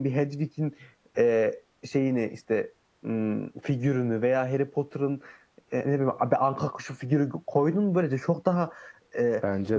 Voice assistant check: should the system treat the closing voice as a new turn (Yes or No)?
No